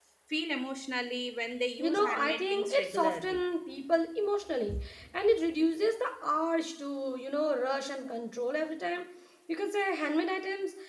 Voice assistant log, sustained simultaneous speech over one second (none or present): present